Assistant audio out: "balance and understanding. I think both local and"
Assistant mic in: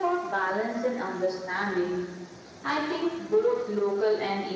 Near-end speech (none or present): none